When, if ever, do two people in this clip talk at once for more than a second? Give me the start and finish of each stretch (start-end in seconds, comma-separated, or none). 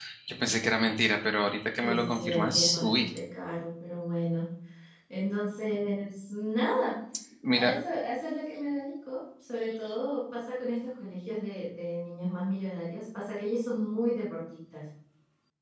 1.8-3.1